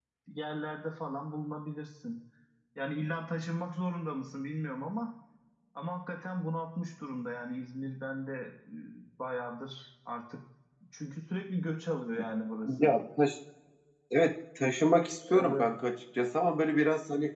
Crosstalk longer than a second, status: none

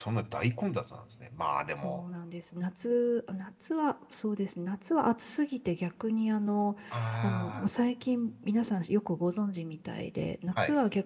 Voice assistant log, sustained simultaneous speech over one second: none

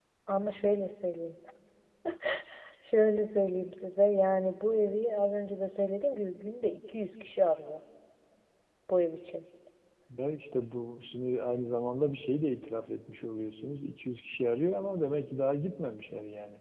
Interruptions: none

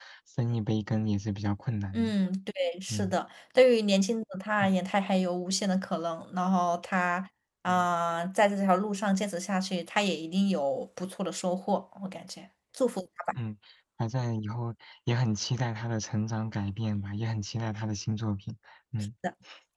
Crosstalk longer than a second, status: none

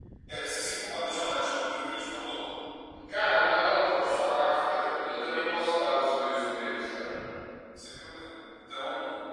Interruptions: none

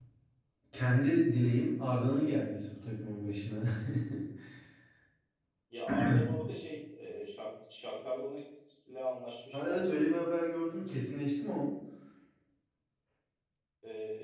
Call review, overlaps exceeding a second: none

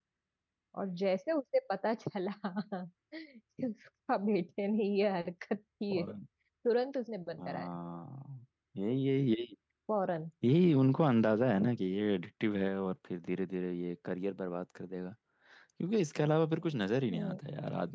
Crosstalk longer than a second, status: none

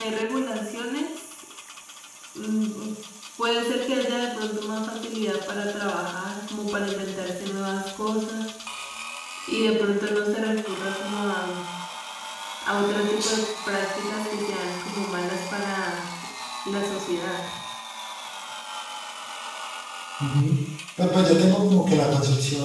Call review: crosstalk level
none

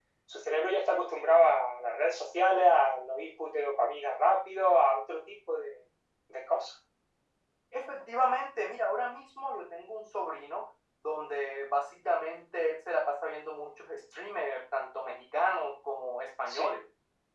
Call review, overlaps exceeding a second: none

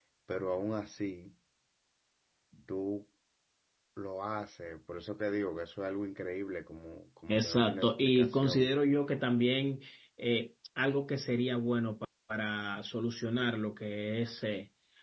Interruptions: present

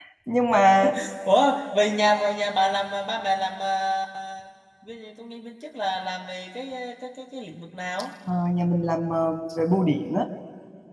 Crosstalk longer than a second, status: none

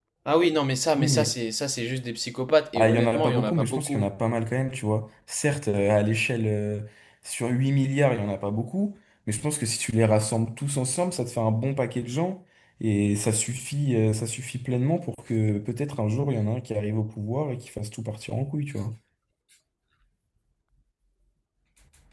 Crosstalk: present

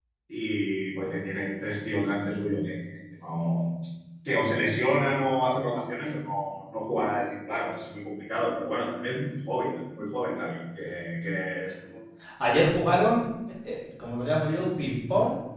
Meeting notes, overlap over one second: none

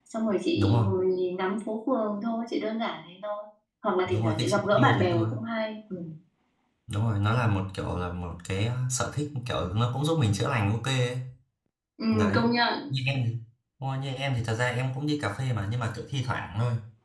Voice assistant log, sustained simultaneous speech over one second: present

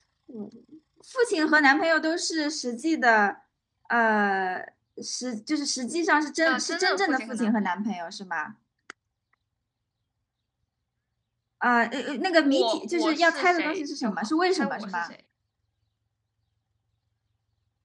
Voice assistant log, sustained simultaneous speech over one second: present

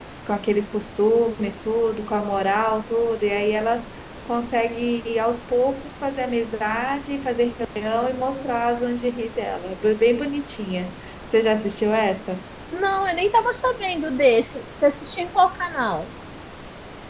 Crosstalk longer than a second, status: none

